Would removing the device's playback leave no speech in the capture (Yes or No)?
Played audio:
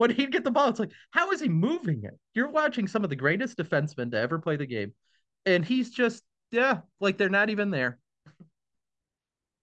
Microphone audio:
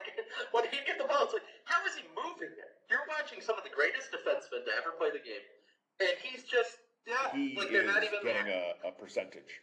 No